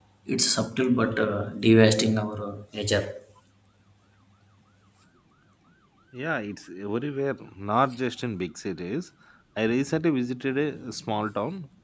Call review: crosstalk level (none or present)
none